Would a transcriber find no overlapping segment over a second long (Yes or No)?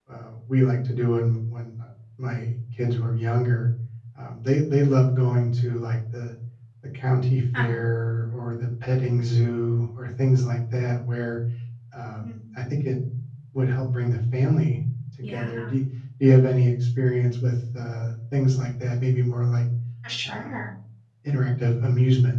Yes